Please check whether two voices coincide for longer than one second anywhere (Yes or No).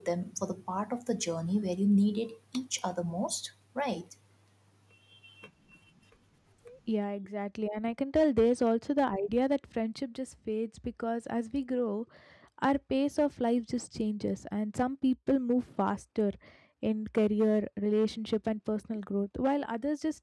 No